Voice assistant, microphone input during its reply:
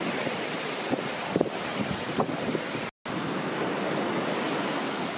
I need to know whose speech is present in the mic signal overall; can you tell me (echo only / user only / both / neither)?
neither